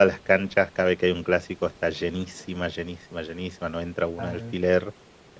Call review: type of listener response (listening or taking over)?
listening